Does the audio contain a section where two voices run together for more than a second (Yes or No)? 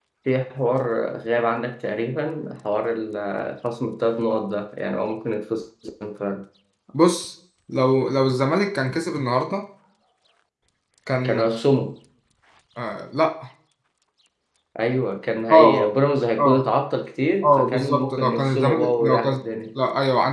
Yes